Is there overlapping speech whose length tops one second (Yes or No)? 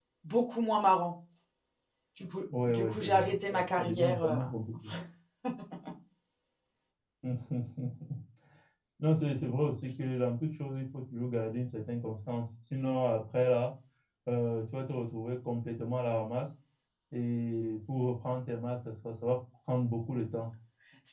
Yes